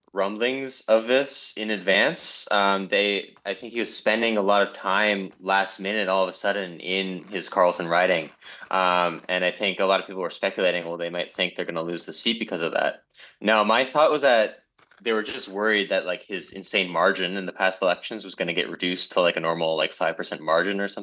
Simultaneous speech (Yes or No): No